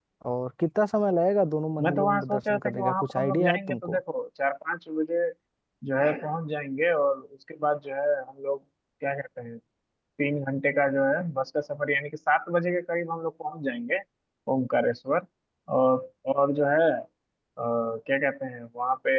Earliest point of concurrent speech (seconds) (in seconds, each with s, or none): 1.8 s